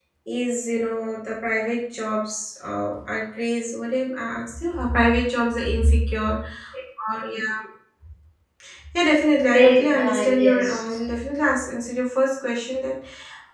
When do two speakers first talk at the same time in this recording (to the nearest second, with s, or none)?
10 s